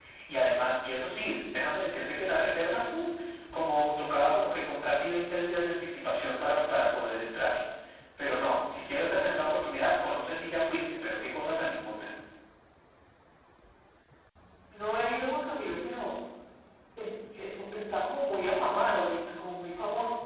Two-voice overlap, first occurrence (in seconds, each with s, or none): none